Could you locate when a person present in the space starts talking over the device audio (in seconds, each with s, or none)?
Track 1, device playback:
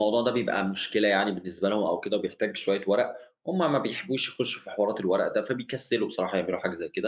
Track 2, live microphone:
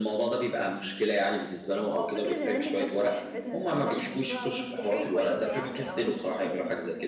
2.0 s